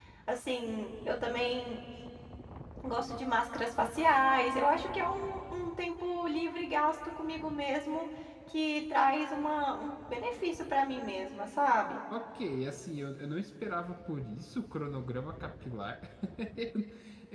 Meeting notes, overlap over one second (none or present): none